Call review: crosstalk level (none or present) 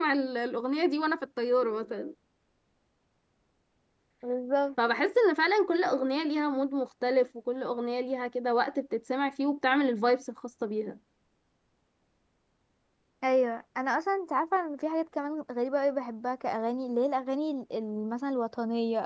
none